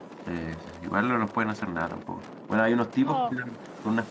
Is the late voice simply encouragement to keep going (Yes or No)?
Yes